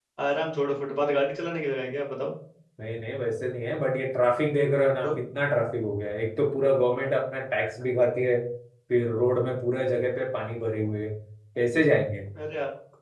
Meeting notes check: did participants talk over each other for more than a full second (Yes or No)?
No